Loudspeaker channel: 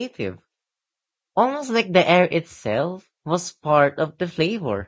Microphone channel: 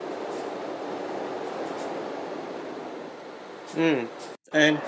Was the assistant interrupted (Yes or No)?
Yes